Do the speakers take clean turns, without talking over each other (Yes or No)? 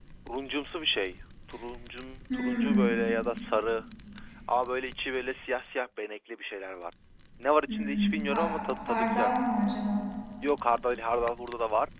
No